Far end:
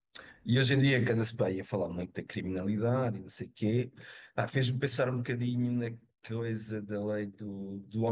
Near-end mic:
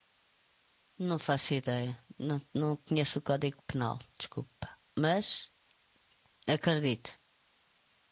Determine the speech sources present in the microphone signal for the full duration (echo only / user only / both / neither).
user only